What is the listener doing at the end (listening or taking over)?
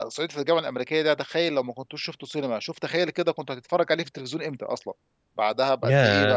taking over